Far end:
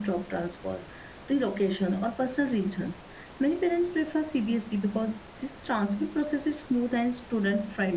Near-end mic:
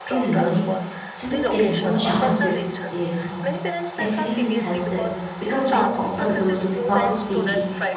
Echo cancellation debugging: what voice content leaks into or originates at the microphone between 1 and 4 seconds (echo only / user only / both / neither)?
both